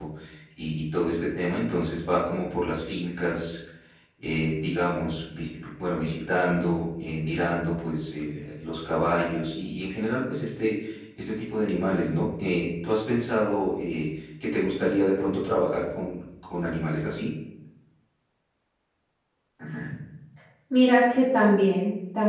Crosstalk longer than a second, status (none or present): none